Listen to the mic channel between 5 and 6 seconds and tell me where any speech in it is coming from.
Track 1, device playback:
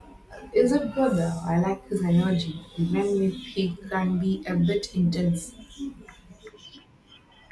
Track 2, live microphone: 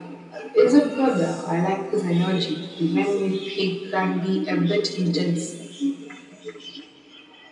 echo only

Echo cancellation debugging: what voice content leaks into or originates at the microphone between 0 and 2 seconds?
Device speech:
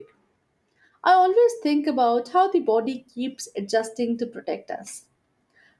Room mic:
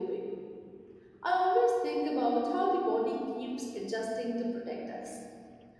echo only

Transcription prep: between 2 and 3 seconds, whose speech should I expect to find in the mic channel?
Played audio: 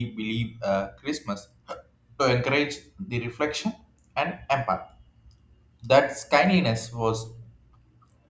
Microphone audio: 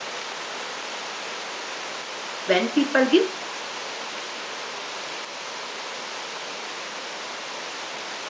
user only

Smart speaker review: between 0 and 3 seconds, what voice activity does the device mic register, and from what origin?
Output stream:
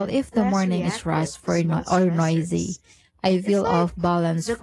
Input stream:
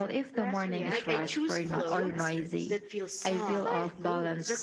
both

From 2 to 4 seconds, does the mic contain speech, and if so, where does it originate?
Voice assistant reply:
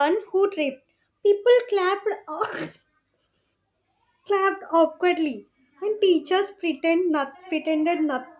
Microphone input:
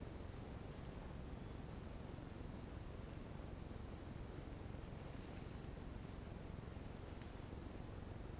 neither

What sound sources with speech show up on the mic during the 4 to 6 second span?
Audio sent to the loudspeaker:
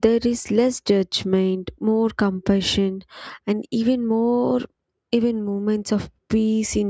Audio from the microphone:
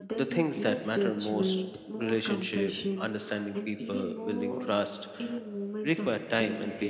both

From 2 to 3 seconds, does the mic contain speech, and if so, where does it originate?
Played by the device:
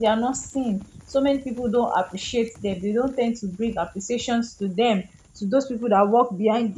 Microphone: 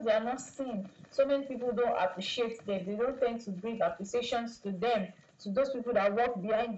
echo only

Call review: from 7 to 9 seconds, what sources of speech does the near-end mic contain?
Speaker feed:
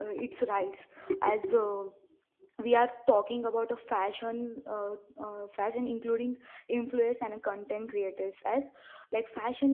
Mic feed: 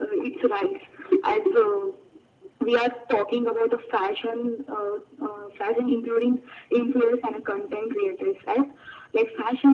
echo only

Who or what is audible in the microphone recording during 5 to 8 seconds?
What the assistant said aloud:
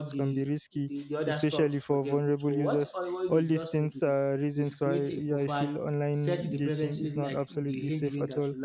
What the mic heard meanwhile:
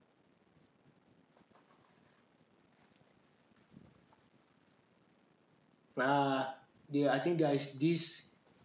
user only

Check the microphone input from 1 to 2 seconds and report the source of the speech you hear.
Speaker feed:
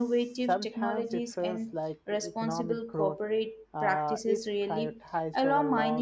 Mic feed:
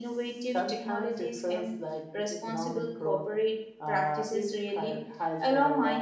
echo only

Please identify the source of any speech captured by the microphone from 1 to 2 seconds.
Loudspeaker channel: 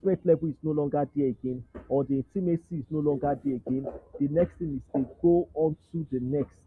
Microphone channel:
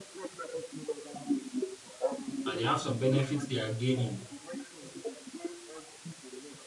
echo only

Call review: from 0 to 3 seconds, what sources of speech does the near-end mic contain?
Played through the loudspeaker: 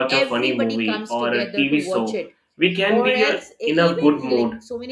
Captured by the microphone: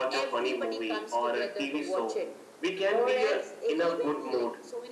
echo only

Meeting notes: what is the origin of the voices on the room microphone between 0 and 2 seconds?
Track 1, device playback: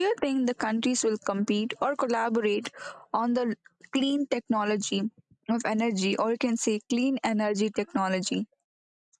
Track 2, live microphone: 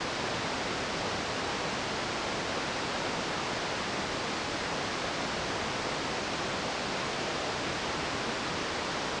neither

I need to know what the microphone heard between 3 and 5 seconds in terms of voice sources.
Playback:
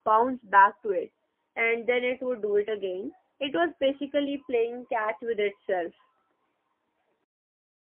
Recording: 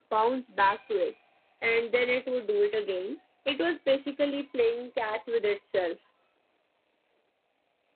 echo only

